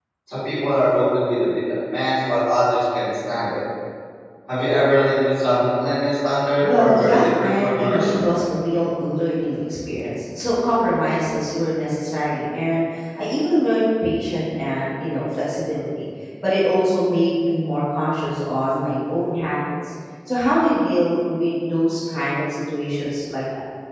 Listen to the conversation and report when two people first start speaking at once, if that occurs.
6.6 s

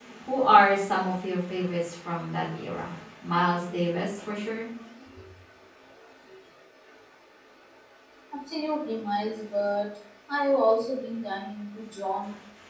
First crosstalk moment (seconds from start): none

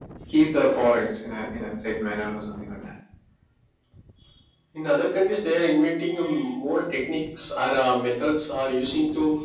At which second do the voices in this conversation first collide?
none

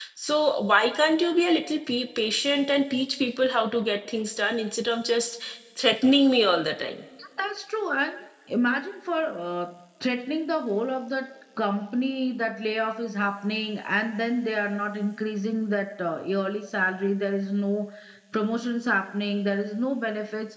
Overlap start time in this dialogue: none

